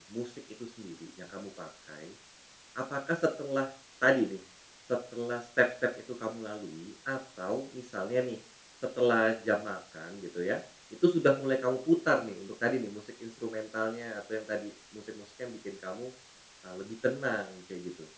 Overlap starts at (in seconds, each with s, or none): none